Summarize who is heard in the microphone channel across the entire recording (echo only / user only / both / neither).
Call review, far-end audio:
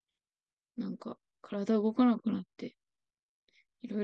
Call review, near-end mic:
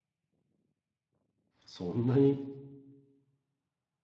user only